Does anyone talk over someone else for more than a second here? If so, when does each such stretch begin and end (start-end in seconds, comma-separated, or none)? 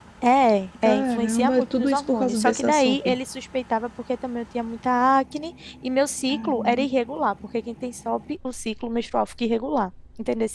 0.8-3.1